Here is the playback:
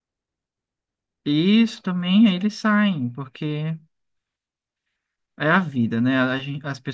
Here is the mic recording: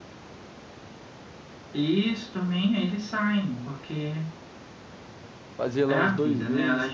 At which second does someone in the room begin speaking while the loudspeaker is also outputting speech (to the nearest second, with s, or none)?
6 s